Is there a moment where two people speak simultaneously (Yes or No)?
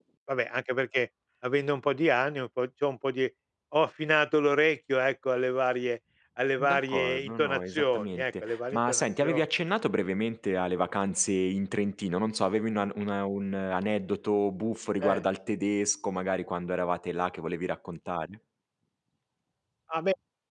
Yes